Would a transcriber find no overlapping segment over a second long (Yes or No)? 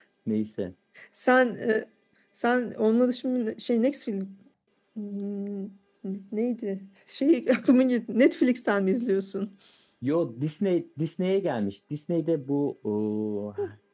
Yes